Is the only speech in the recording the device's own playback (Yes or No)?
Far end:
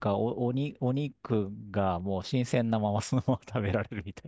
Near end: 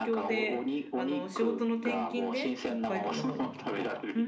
No